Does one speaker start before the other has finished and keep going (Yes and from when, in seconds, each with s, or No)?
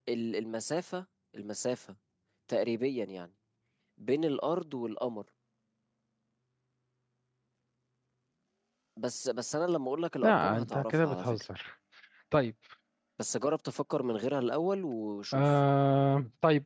Yes, from 10.2 s